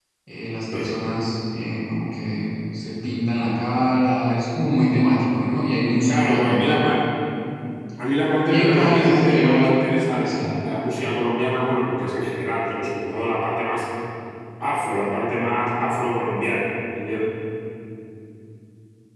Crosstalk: present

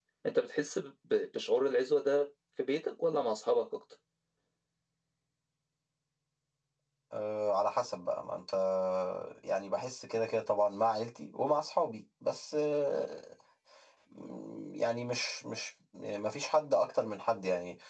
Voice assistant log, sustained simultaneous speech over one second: none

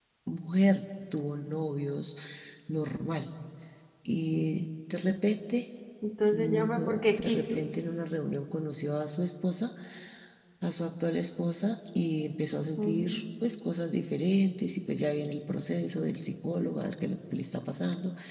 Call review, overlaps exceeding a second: present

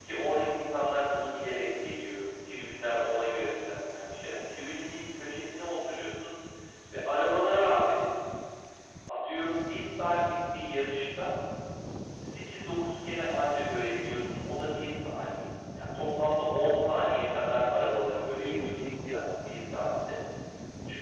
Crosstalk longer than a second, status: present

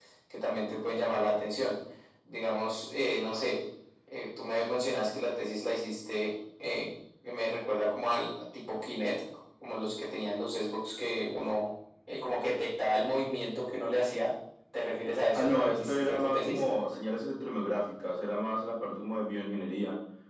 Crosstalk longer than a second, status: present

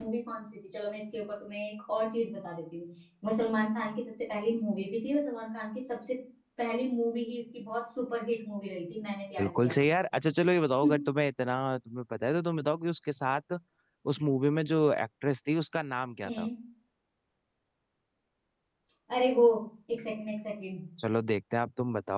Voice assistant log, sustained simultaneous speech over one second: none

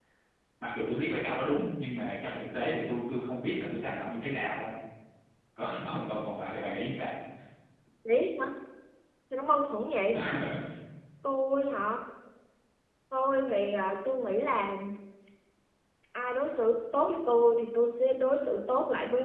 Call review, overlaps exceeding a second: none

